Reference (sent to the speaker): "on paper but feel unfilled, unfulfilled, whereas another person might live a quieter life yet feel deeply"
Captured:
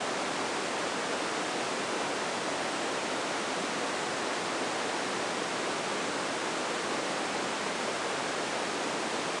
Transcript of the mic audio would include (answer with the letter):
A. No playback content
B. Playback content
A